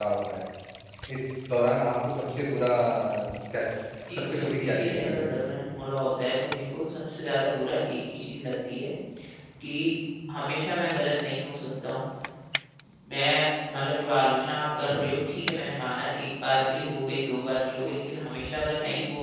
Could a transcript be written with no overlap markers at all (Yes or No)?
No